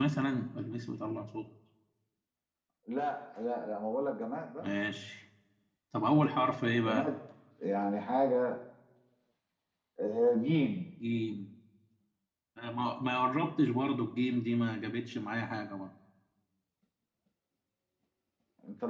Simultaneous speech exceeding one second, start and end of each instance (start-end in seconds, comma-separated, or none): none